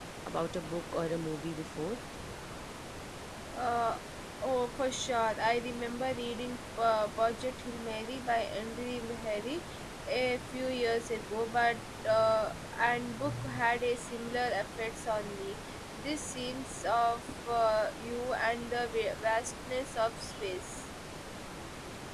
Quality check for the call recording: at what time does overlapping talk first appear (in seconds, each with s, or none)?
none